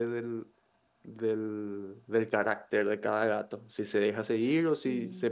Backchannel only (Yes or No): Yes